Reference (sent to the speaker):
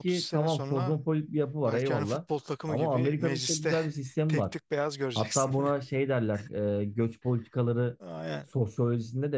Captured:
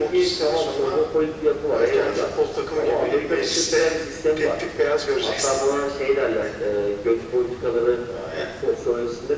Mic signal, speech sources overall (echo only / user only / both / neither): echo only